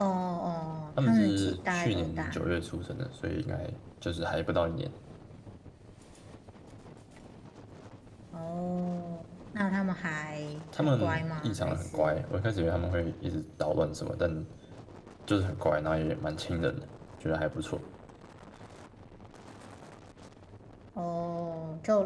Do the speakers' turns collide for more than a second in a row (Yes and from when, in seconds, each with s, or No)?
Yes, from 1.0 s